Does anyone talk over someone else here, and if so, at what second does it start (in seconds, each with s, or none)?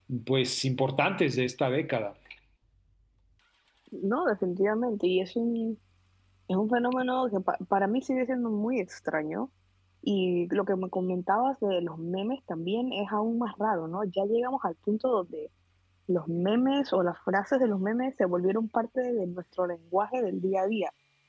none